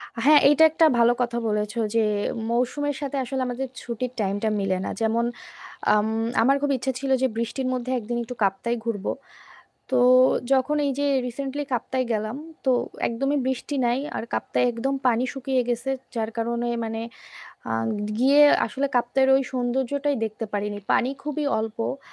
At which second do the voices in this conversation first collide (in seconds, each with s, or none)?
none